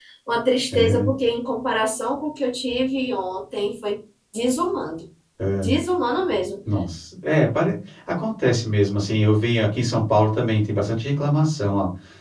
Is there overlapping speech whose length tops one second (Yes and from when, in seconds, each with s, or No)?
No